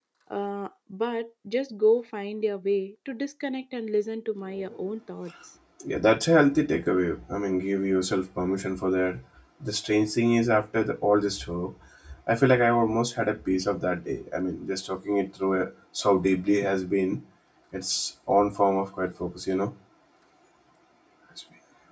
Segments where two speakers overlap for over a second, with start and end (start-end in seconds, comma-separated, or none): none